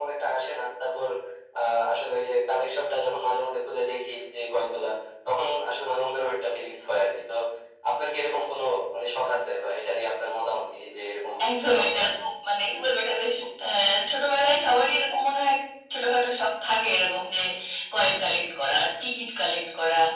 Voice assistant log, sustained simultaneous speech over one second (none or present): none